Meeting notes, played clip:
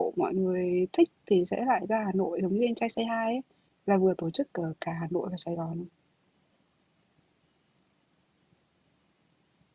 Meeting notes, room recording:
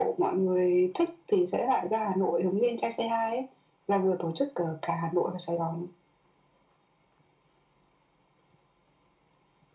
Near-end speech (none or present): none